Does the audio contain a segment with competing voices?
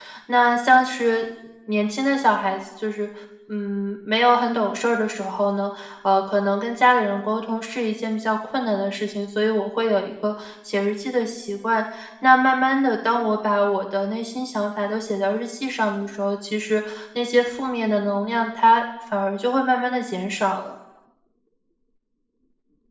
No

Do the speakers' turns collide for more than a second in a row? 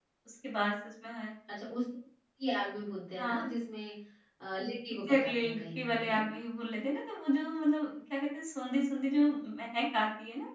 Yes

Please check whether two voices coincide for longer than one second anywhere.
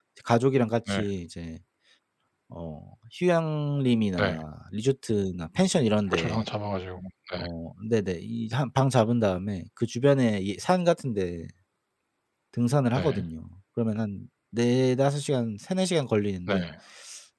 No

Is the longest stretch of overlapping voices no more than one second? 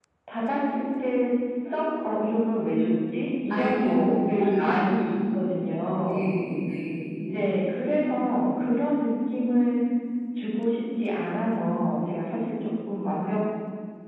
No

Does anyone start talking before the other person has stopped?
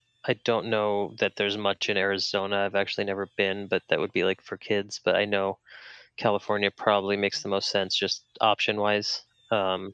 No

